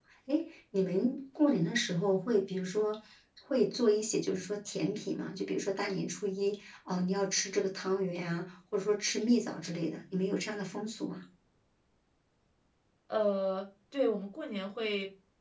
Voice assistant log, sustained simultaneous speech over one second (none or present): none